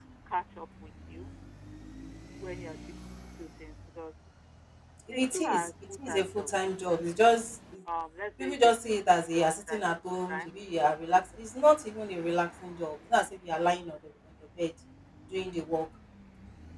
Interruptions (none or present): present